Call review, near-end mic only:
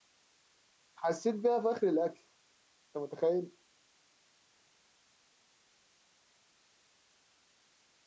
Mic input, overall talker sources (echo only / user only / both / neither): user only